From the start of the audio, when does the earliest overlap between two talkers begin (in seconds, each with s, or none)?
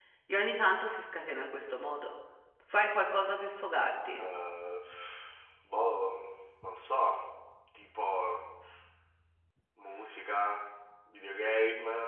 none